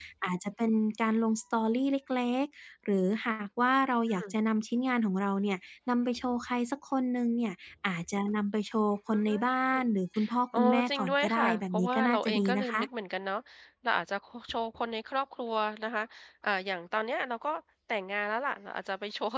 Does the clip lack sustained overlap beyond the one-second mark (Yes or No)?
No